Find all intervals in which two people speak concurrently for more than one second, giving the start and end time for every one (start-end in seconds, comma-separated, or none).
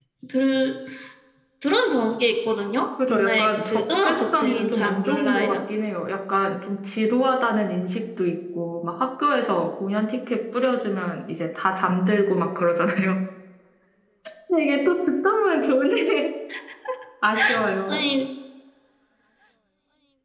3.1-5.6